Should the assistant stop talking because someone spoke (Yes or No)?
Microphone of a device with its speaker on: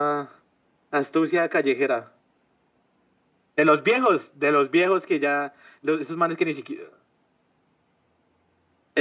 No